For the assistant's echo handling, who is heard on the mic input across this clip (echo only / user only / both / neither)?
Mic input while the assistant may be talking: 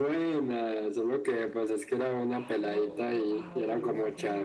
both